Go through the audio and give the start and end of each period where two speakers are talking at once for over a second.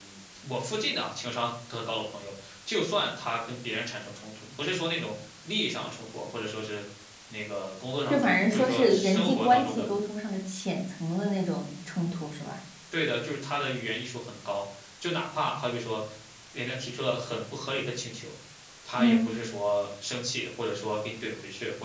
8.1-9.9

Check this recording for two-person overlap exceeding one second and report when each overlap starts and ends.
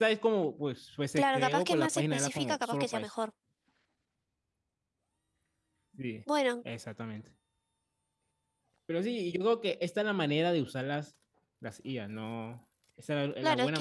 1.2-3.1

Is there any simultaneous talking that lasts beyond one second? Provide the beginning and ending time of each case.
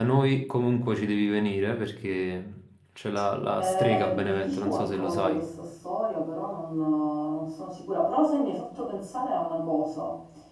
3.6-5.4

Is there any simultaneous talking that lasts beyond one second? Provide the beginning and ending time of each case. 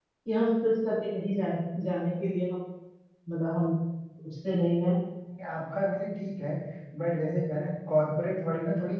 none

